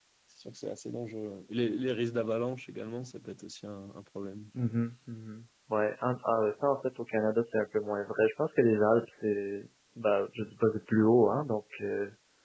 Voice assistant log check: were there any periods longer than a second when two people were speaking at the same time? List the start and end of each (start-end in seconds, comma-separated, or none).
none